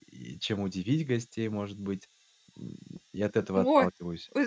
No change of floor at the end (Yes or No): No